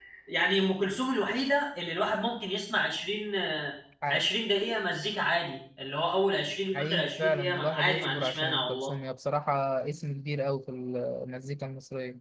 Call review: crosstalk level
present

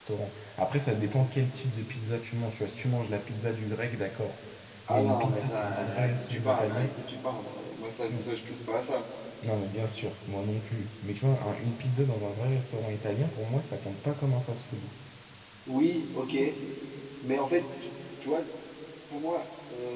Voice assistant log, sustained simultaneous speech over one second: present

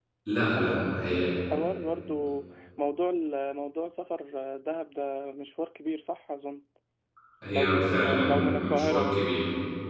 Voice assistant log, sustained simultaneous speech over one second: present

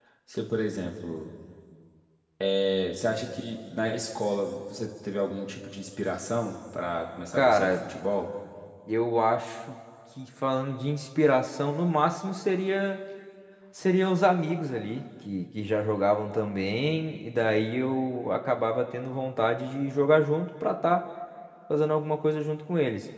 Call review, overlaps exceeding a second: none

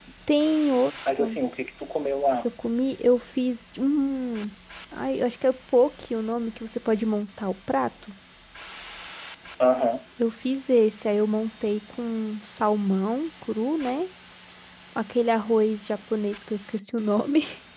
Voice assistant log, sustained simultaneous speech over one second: none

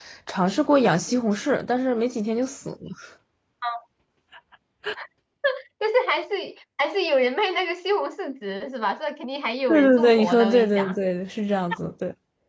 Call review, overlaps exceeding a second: present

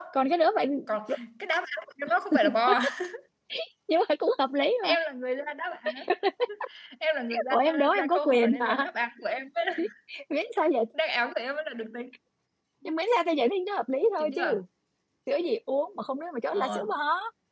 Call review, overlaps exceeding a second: present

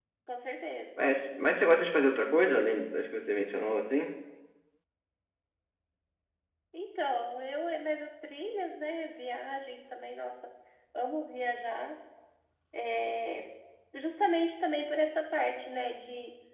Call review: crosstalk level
none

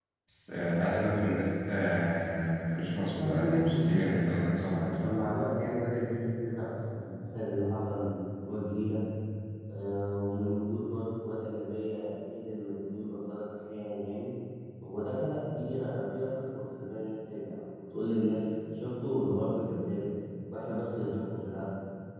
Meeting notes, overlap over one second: present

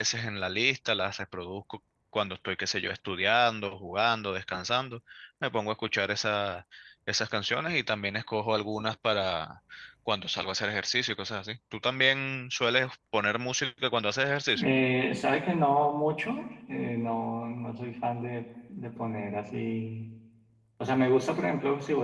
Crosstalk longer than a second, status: none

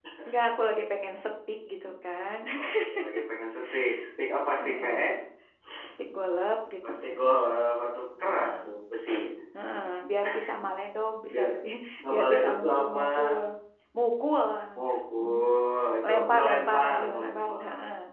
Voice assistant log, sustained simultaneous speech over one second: present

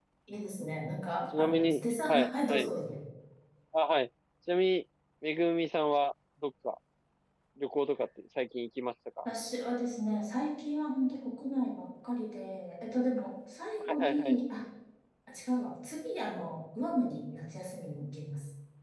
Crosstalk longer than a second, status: present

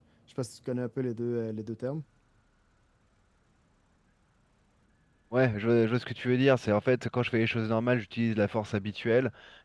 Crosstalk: none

